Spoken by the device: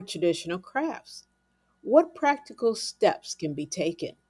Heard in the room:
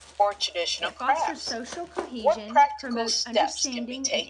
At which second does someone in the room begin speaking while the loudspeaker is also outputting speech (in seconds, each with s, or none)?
0.8 s